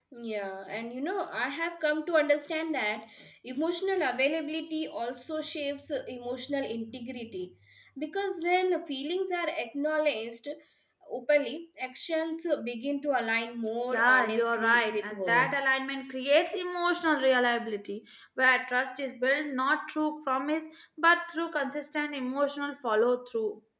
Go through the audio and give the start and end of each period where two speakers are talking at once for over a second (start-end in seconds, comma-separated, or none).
13.9-15.7